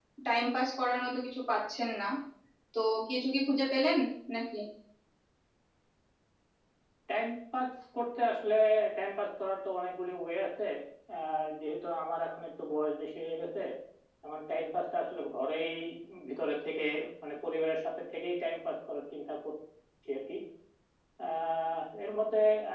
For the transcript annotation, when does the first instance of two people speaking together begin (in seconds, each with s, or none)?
none